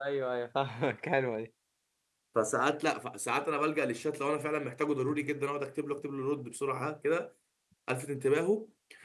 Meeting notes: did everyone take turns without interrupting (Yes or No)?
Yes